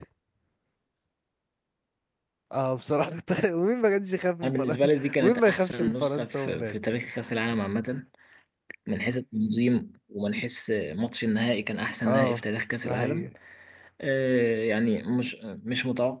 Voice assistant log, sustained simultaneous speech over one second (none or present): present